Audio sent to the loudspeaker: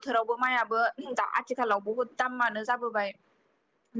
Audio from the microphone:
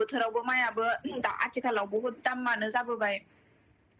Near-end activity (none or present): none